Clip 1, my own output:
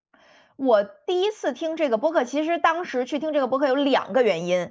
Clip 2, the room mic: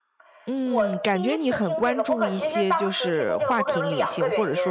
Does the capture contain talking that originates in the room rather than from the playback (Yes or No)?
Yes